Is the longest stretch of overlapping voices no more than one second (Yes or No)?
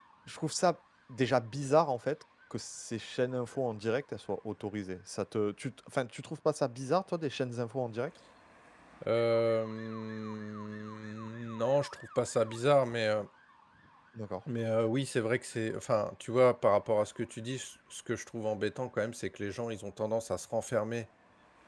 Yes